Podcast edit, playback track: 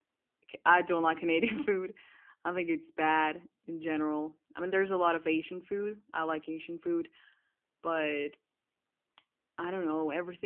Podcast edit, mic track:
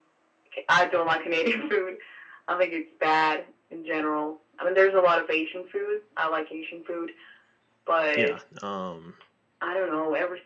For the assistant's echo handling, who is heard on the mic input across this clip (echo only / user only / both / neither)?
both